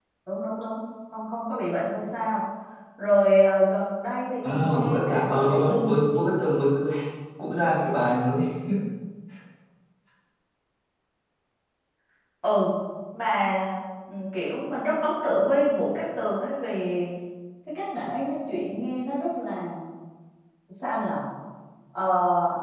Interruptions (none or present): present